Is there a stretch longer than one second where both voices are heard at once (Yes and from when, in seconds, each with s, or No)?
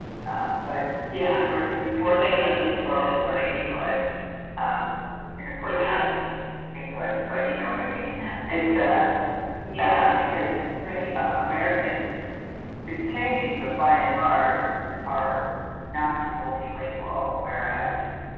Yes, from 2.0 s